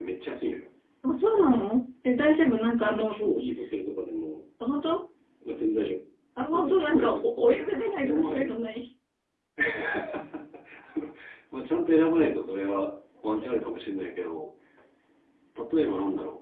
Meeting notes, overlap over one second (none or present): present